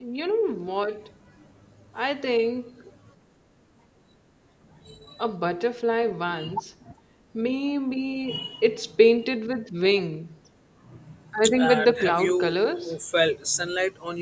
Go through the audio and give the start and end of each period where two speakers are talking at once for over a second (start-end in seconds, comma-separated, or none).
11.6-12.9